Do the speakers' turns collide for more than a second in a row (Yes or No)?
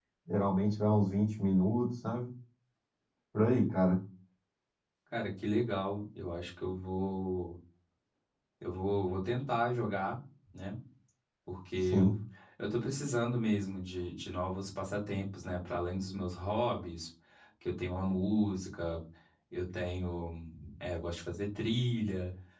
No